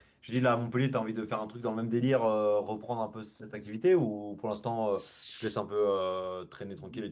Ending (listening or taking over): taking over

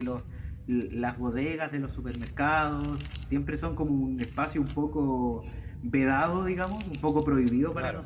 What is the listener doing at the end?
listening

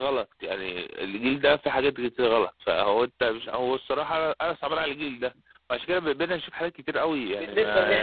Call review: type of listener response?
taking over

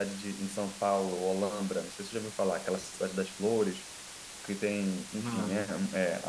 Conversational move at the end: listening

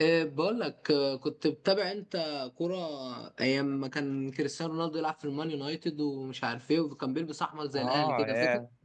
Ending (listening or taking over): taking over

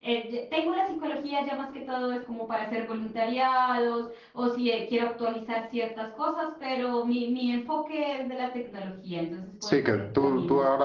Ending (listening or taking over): taking over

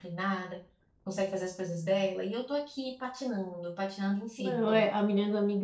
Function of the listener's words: taking over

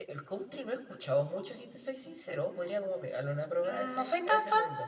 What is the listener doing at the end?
taking over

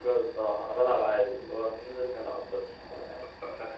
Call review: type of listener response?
taking over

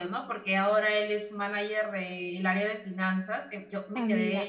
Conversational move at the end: taking over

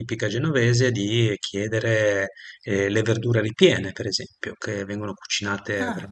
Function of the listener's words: listening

